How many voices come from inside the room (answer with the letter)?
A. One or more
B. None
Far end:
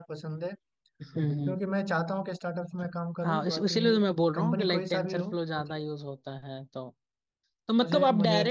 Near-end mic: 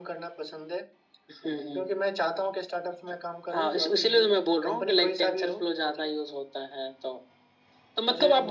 B